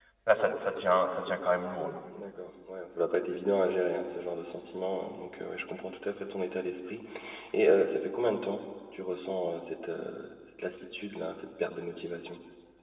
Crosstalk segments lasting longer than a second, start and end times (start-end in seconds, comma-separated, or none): none